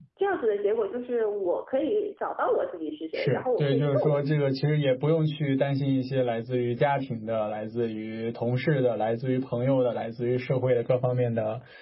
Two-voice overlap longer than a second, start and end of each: 3.1-4.6

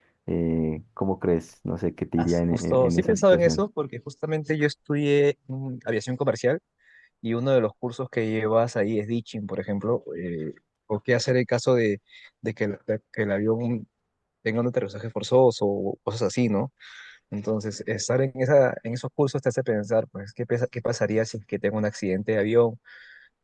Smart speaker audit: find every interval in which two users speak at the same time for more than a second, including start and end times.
2.2-3.6

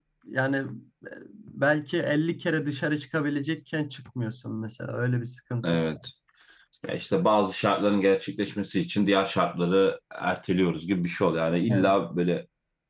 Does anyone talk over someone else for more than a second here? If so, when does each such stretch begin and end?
none

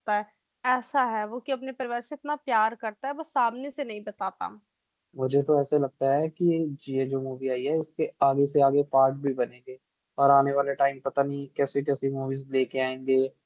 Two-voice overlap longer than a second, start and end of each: none

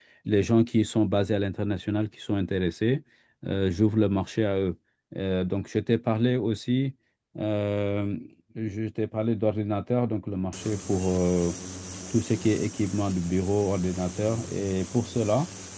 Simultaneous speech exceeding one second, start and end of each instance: none

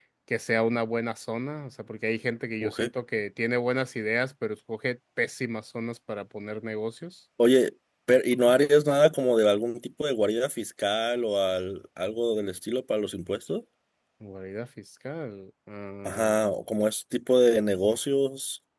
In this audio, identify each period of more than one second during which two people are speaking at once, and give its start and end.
none

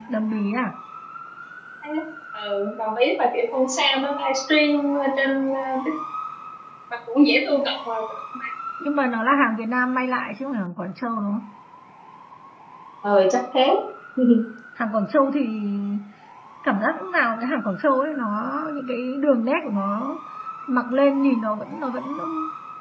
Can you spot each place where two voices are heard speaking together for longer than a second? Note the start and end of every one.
none

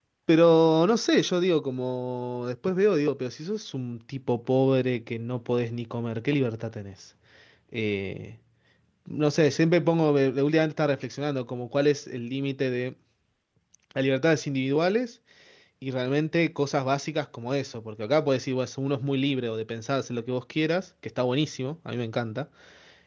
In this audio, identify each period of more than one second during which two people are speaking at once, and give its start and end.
none

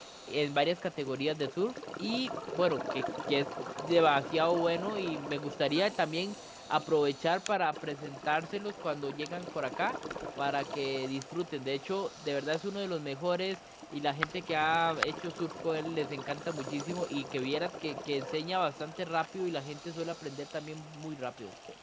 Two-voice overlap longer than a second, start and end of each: none

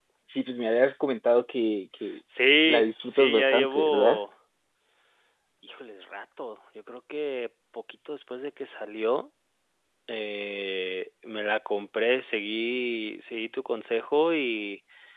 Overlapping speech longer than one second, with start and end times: 2.7-4.2

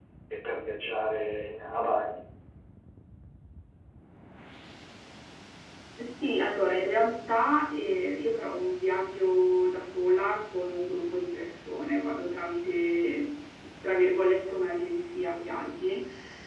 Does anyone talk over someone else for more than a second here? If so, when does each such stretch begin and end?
none

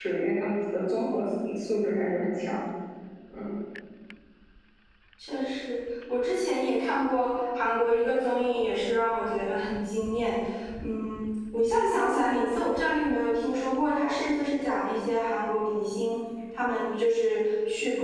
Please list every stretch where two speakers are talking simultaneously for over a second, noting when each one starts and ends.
none

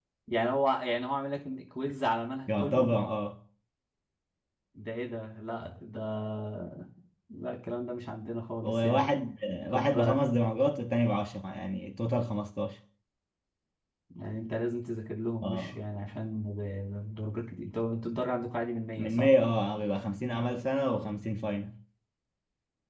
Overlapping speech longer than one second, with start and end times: none

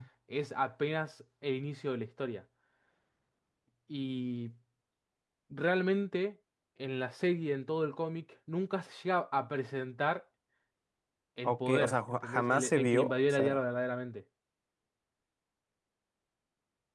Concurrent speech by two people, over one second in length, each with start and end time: 11.4-13.6

